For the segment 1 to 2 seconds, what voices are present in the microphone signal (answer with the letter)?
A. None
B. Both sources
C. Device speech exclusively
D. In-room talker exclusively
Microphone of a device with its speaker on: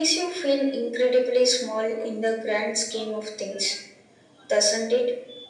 C